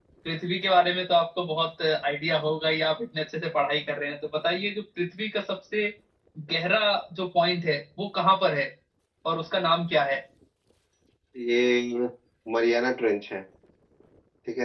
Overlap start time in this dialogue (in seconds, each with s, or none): none